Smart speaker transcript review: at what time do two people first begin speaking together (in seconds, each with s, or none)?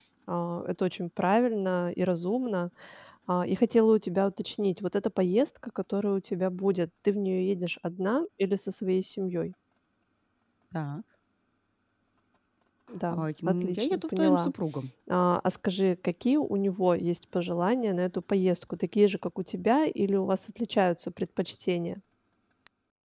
13.2 s